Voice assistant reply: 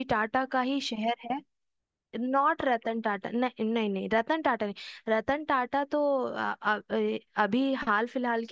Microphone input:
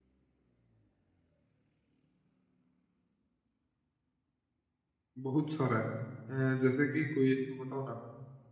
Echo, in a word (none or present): none